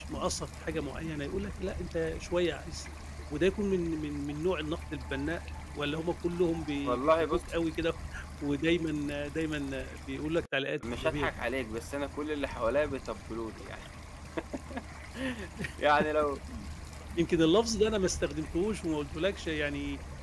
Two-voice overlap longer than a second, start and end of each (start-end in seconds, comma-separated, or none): none